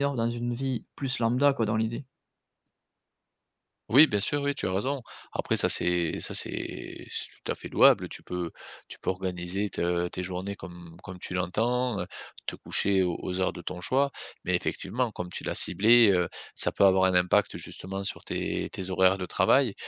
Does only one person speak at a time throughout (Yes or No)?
Yes